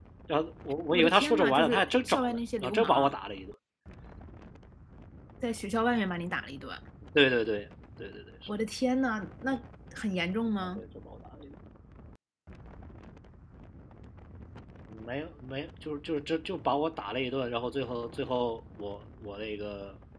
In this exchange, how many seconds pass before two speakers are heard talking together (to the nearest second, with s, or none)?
1 s